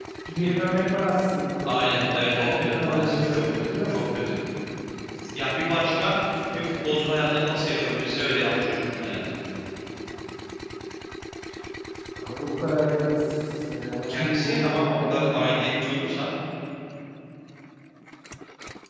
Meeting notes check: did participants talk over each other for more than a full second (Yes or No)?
Yes